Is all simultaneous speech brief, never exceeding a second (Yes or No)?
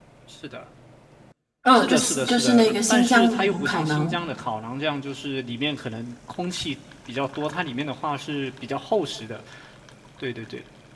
No